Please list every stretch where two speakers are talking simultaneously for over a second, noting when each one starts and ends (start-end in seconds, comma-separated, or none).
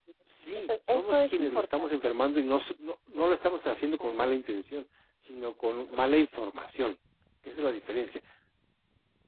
0.6-2.1